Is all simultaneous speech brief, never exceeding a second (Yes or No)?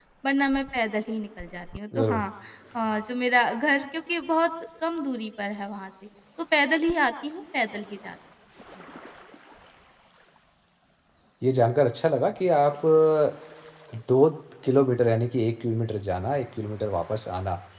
Yes